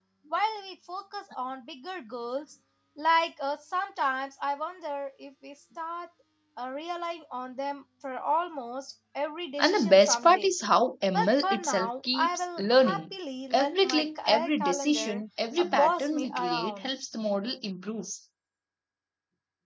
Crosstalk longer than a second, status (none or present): present